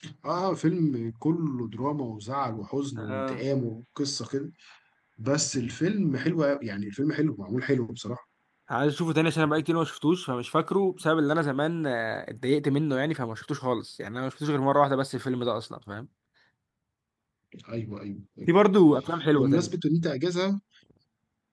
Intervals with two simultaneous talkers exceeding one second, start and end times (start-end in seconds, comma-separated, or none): none